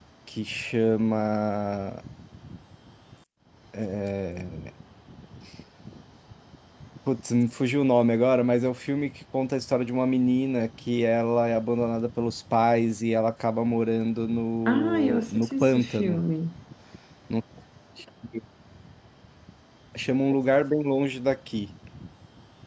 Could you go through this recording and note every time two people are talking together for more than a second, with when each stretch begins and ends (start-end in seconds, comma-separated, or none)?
14.7-16.2